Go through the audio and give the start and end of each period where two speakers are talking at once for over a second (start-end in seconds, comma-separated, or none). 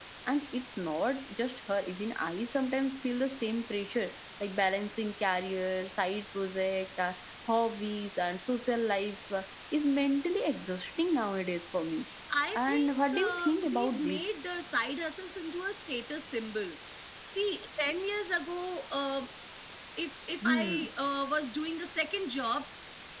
12.6-14.2